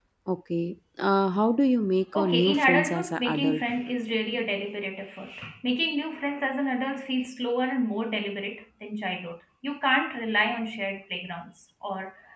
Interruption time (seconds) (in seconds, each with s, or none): 2.1 s